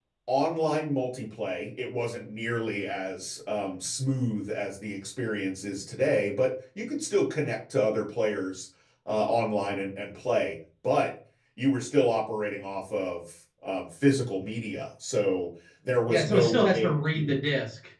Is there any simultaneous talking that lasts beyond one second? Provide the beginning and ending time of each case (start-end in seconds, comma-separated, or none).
16.1-17.4